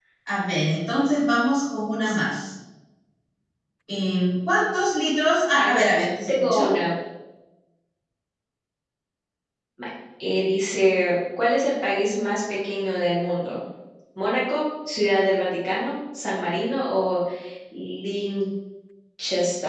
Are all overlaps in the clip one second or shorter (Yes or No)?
Yes